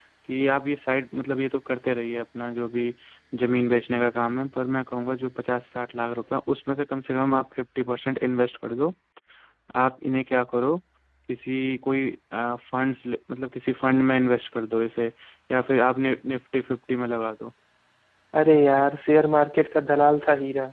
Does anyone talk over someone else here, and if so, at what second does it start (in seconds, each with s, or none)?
none